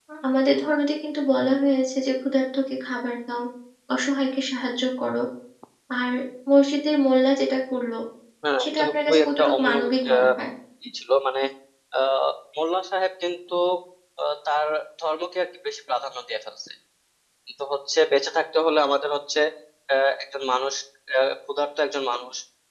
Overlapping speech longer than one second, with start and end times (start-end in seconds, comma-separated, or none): 8.6-10.3